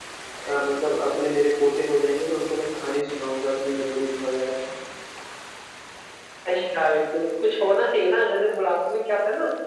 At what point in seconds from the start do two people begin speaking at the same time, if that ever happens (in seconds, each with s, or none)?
none